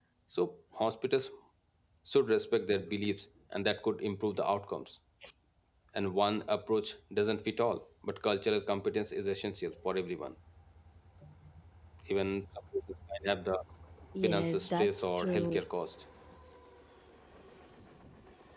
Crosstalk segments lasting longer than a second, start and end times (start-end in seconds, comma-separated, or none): 14.2-15.6